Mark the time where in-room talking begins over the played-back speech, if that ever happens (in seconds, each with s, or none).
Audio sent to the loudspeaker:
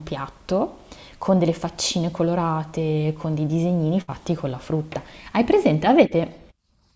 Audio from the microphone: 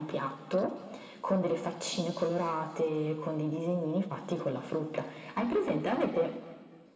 none